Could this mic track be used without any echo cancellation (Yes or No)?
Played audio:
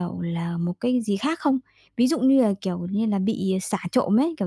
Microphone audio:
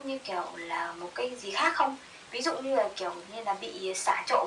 No